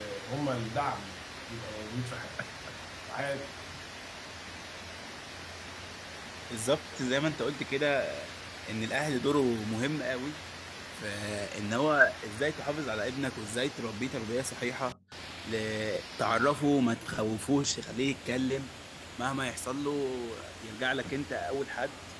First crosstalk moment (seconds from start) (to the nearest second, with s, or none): none